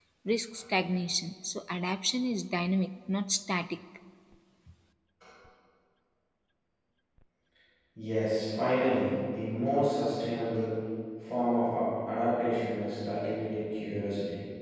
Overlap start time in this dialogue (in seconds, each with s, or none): none